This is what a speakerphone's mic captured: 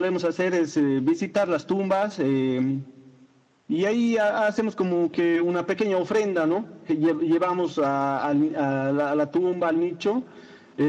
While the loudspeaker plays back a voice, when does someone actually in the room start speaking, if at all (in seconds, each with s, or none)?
none